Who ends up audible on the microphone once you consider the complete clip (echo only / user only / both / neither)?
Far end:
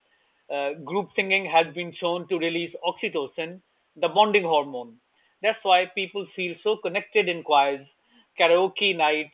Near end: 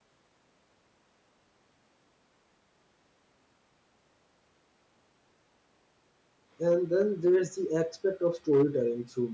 user only